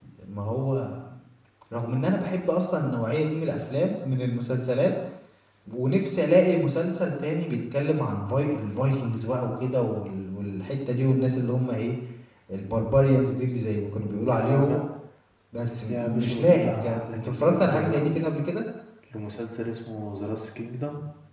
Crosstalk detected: Yes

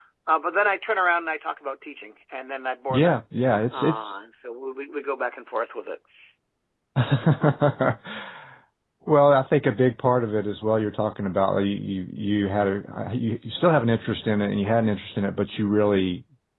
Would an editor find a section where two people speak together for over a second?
No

